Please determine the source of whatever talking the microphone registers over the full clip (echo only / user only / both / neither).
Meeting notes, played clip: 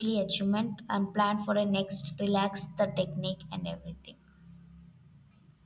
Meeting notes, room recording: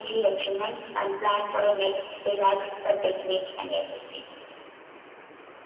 echo only